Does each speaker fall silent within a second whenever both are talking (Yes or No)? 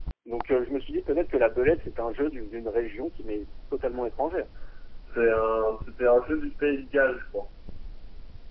Yes